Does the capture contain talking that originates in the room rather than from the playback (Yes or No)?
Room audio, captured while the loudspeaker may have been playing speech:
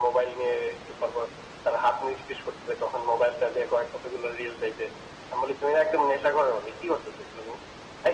No